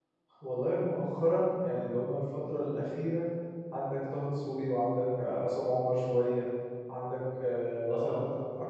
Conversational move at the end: listening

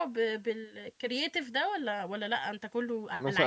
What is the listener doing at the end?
taking over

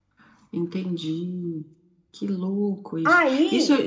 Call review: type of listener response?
listening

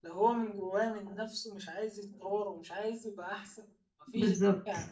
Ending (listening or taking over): listening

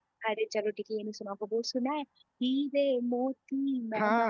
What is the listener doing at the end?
taking over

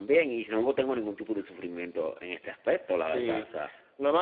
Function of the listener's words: taking over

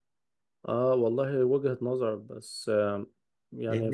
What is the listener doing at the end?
listening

